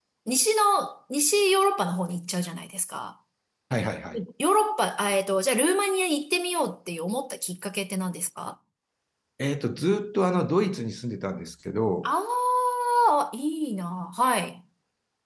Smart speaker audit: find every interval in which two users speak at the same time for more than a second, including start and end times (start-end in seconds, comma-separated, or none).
none